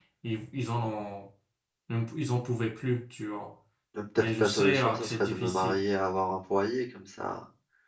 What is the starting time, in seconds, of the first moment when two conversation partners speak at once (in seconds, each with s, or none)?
4.2 s